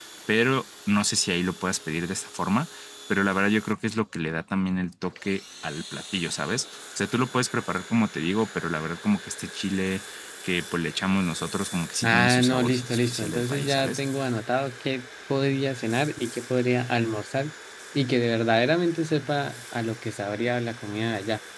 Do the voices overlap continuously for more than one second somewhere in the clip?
Yes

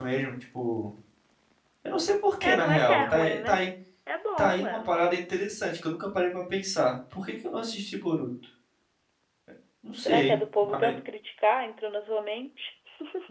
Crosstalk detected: Yes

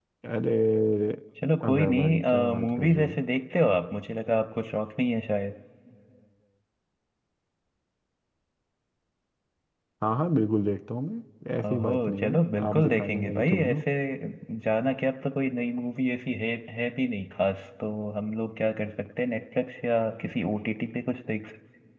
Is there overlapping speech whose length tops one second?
Yes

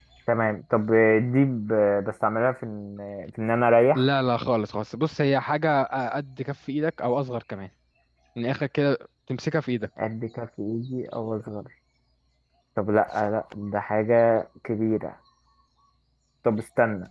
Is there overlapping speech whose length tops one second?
No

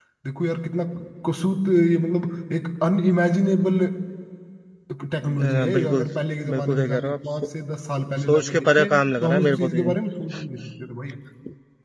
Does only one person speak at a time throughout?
No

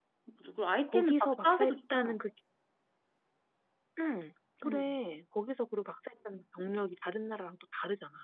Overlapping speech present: Yes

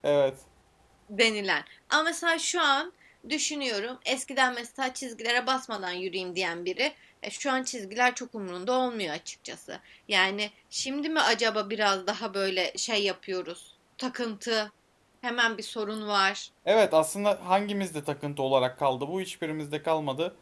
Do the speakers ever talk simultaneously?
No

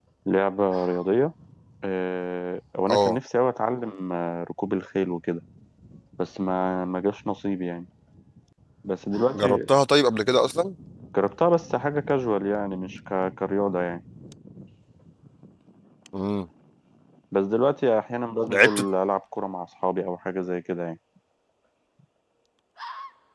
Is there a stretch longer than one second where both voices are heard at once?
No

